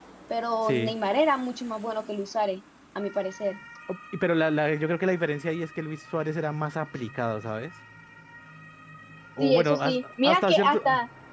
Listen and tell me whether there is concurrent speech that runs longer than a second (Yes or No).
Yes